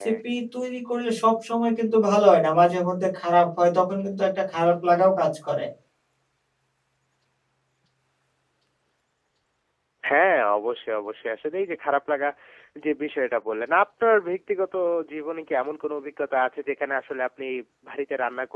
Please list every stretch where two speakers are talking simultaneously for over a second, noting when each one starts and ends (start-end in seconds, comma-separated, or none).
none